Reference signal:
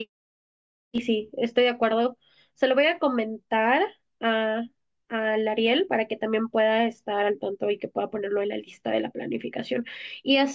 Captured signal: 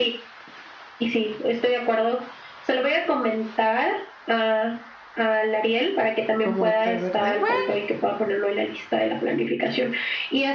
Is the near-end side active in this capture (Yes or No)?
Yes